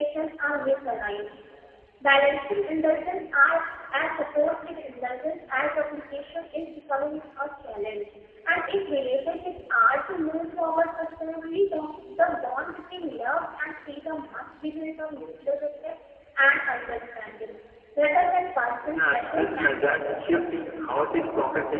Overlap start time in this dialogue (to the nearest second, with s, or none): 19 s